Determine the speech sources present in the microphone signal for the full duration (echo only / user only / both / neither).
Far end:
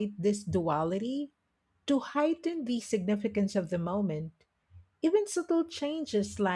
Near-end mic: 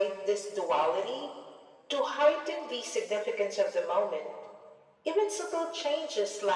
echo only